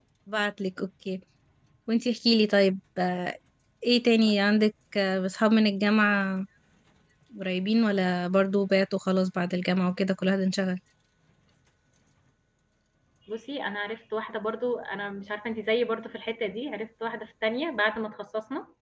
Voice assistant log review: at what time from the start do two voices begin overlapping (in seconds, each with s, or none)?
none